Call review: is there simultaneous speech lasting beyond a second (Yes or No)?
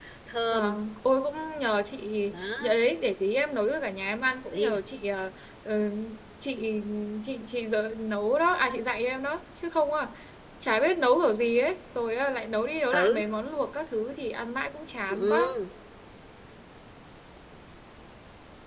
No